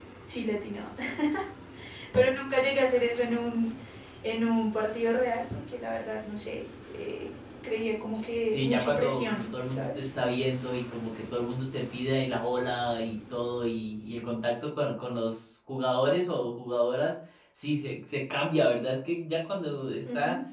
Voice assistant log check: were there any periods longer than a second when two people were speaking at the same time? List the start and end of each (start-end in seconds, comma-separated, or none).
8.5-10.1